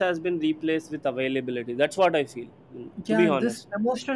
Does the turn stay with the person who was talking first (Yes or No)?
No